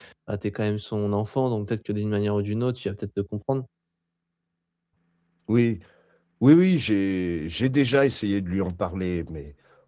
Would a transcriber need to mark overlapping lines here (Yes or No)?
No